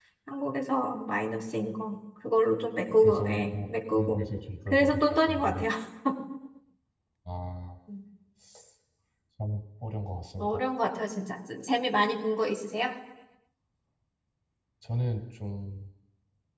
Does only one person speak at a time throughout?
No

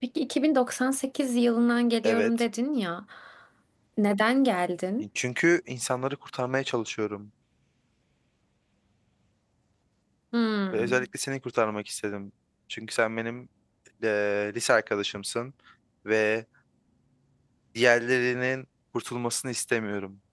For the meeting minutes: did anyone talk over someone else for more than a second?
No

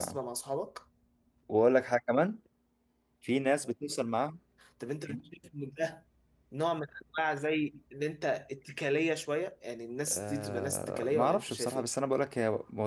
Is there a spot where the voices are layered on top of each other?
Yes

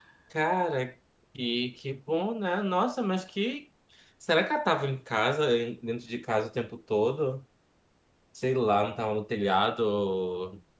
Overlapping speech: No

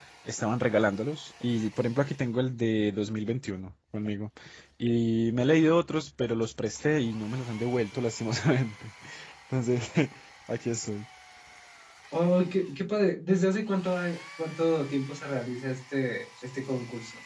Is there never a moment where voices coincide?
Yes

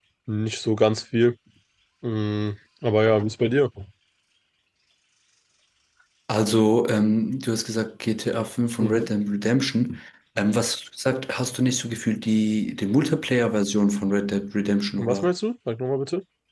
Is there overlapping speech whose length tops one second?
No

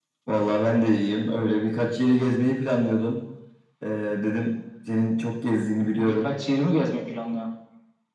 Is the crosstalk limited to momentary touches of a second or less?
Yes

